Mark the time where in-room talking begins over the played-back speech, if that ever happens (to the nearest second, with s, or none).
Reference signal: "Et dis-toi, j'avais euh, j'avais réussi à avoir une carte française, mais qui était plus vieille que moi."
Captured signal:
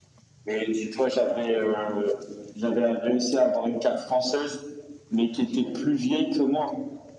none